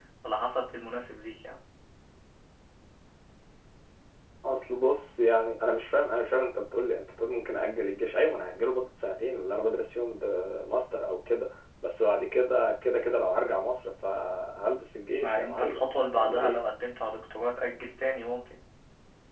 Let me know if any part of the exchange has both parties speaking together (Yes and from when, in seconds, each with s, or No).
Yes, from 15.2 s